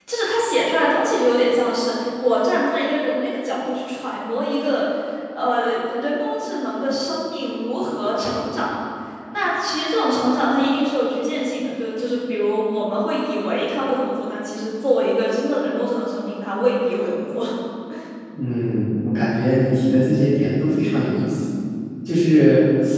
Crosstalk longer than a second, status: none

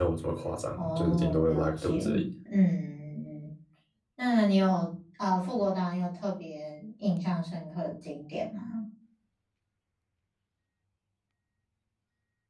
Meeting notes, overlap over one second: present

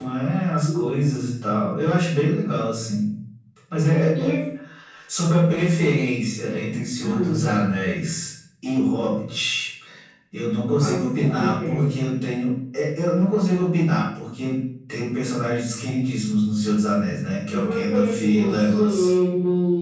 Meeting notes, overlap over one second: present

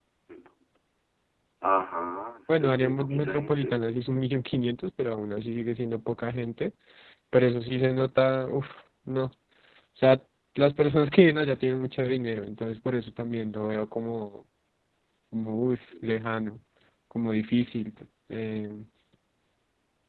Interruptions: present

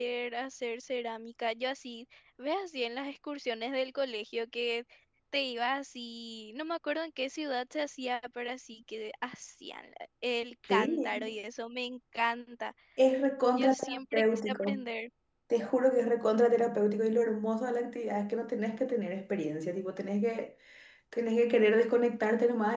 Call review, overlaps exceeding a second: present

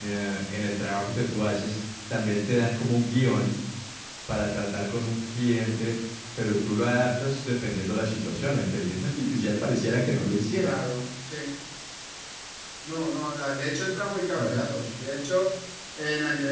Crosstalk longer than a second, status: none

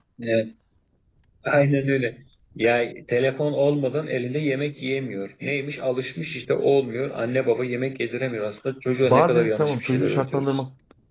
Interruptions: present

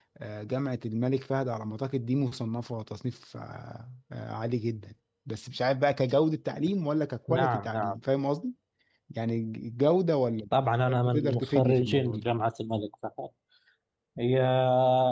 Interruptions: present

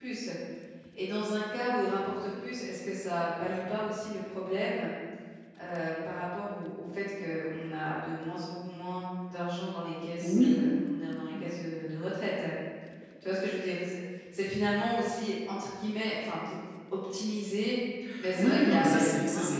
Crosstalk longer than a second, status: present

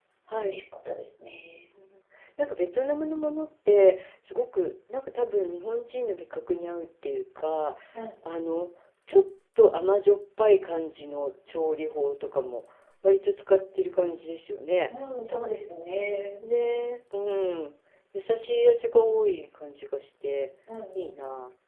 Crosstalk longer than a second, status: none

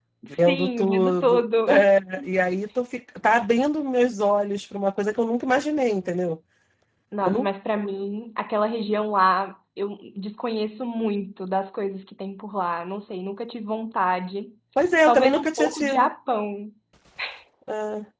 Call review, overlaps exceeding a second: present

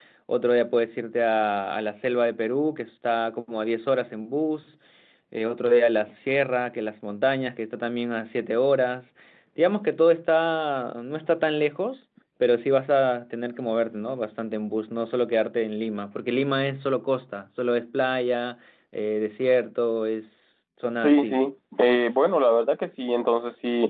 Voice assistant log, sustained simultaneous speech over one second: none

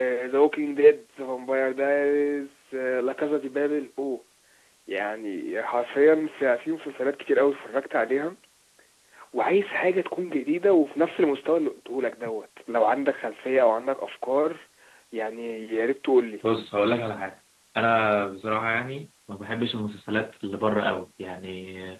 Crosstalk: none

